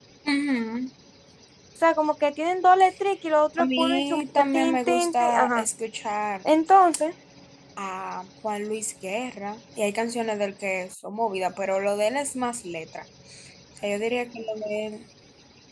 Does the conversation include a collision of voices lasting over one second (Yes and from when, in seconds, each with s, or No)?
Yes, from 3.6 s